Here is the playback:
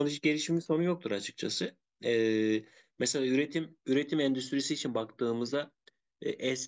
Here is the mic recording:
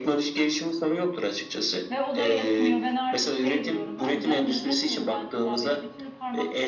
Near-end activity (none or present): present